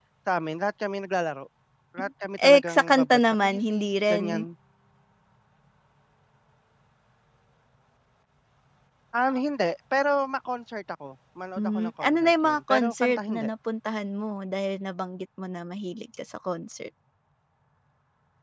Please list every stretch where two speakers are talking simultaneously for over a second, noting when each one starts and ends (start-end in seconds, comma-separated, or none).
2.5-4.2, 11.6-13.5